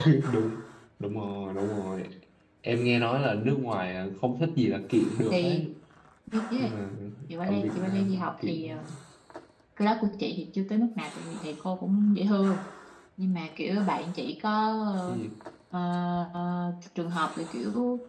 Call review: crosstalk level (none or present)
present